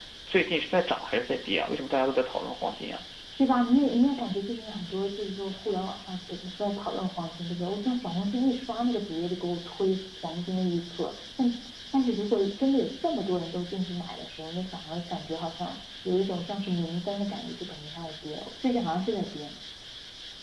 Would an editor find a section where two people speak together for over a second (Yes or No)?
No